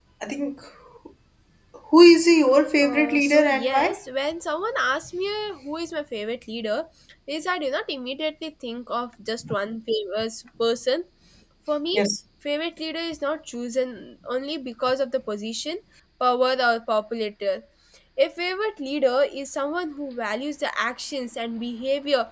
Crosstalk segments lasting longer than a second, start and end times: 2.8-4.0

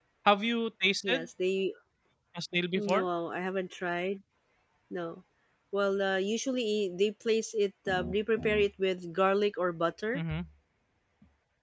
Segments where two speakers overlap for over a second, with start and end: none

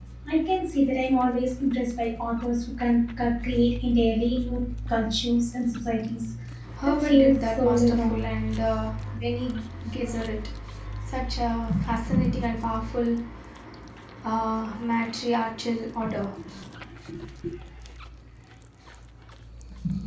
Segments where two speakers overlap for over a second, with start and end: 6.8-8.2

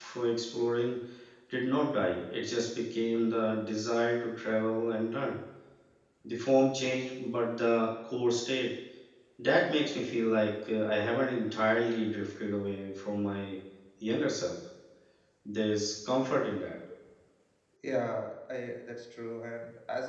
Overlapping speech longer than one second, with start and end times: none

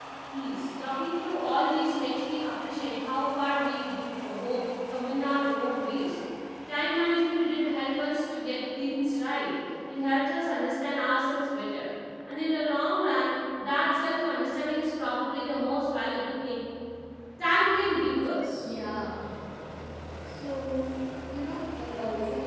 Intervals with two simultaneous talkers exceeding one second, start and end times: none

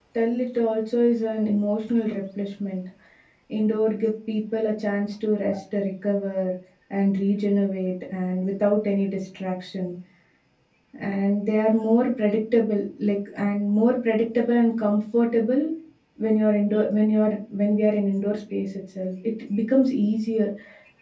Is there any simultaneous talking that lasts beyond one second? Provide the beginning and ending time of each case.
none

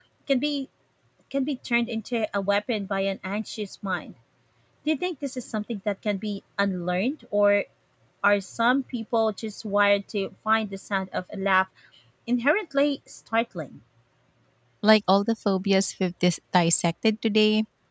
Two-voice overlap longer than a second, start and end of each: none

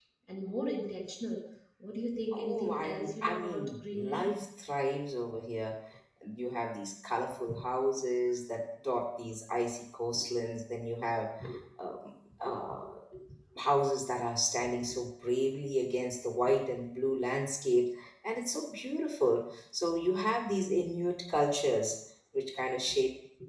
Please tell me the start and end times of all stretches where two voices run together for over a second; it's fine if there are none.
2.3-4.3

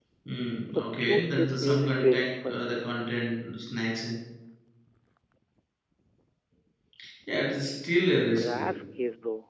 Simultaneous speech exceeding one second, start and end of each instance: 0.7-2.6

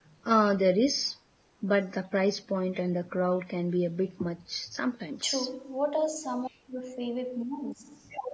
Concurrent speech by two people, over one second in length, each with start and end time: none

